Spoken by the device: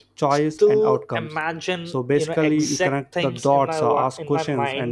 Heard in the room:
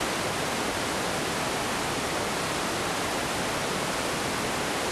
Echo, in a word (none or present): none